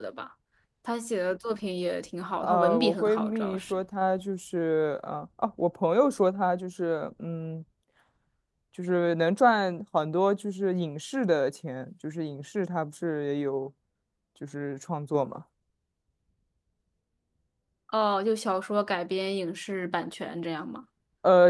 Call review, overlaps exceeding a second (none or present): present